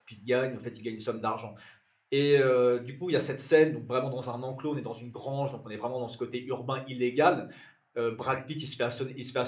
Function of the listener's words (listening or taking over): listening